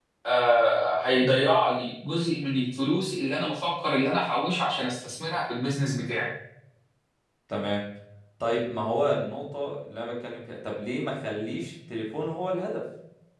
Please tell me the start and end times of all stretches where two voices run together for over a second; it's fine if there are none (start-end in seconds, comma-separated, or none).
none